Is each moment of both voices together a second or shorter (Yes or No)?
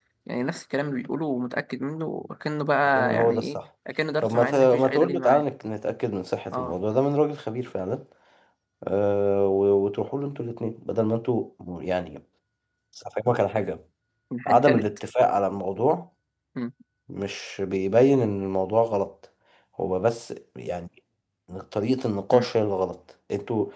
No